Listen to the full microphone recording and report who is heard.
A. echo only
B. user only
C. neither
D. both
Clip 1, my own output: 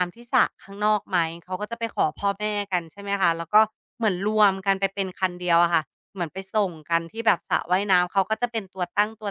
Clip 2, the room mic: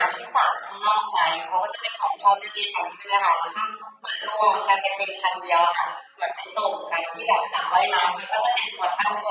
A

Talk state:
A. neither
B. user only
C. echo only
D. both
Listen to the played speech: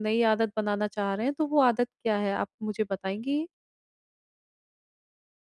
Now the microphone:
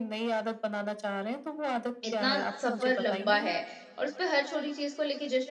D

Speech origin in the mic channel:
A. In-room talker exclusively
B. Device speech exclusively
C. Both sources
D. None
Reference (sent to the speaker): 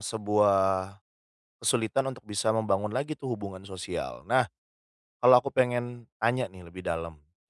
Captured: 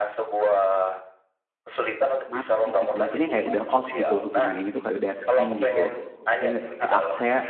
C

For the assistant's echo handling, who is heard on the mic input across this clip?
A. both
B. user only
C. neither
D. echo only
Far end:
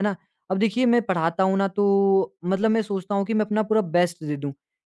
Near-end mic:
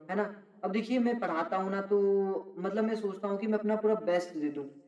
D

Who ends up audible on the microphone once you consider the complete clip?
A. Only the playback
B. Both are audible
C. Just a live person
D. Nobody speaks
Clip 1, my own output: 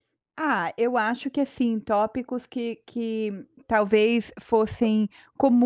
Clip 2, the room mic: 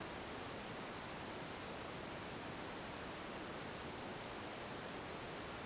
D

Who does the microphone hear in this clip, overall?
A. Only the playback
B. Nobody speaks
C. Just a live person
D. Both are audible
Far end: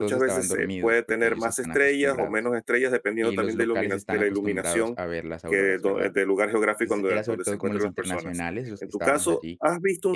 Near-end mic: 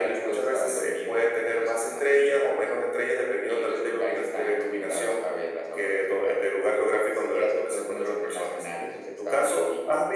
A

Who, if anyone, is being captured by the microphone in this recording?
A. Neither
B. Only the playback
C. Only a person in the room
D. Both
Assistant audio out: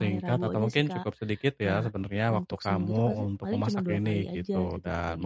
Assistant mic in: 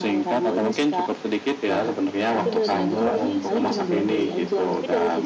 D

